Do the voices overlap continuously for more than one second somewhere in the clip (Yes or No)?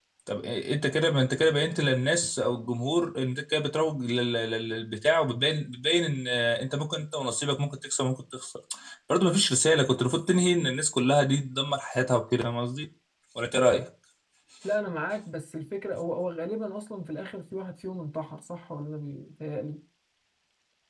No